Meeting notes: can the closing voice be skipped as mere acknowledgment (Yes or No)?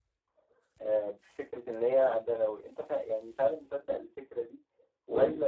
Yes